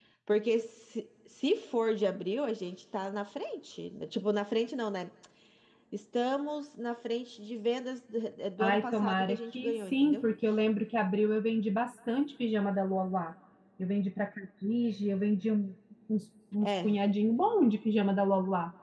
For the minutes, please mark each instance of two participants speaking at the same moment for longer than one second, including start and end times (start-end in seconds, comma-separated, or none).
8.6-10.2